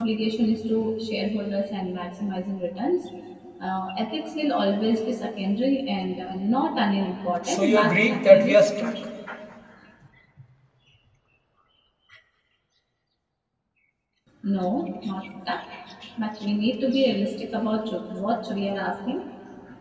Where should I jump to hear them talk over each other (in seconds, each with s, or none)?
7.5 s